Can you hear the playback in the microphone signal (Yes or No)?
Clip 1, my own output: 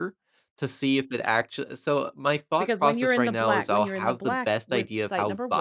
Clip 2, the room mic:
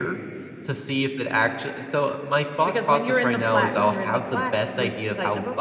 Yes